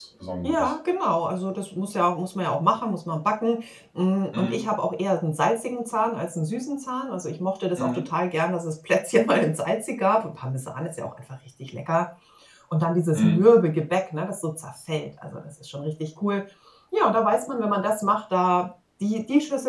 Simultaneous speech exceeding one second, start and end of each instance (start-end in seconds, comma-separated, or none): none